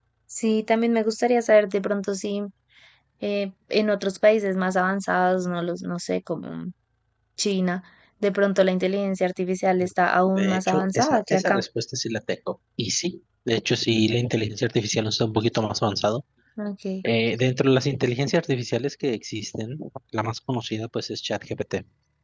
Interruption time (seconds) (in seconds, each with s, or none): 10.2 s